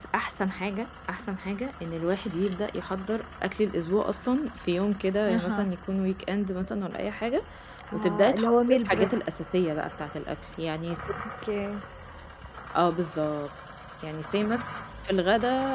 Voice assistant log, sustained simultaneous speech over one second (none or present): present